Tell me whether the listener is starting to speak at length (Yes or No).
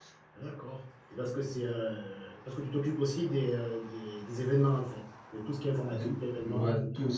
Yes